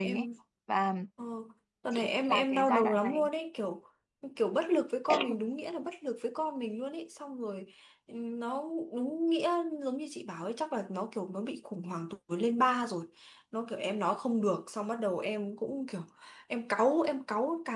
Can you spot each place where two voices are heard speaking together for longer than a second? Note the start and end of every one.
1.9-3.3

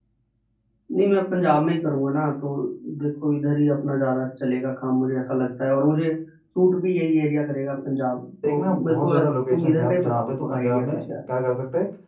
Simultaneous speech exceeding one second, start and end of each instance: 8.4-11.0

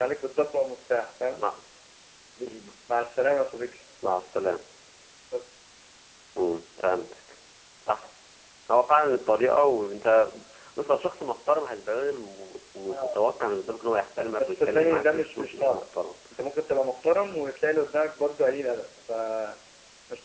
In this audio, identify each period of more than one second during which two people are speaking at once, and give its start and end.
14.4-15.8

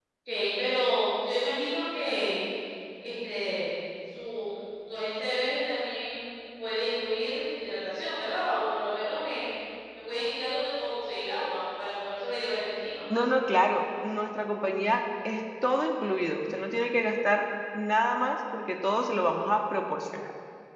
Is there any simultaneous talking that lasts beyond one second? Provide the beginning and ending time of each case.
none

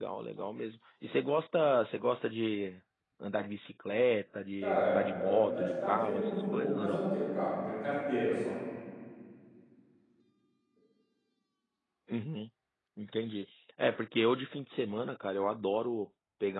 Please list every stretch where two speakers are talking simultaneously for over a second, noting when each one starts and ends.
4.6-7.0

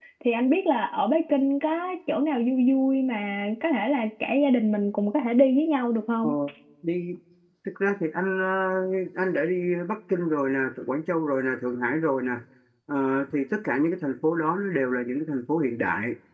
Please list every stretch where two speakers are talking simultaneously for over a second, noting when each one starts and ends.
none

